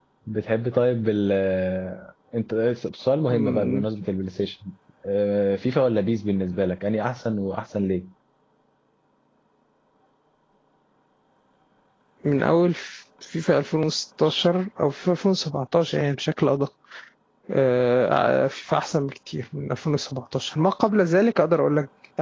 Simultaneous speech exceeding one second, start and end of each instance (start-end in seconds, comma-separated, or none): none